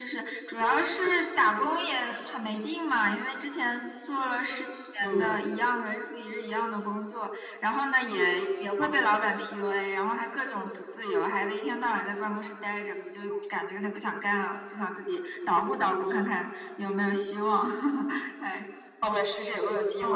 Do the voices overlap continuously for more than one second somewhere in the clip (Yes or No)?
No